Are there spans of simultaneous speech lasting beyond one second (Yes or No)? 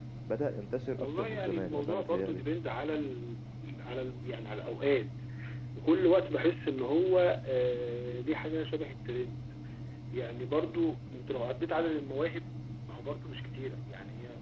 Yes